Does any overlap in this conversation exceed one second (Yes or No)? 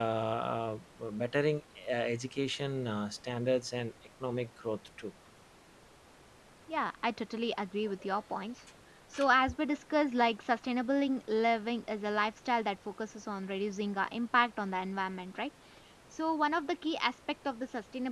No